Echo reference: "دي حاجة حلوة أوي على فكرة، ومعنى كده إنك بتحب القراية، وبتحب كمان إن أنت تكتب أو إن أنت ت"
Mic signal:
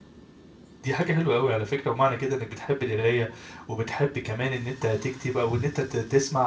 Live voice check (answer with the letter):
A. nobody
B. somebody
A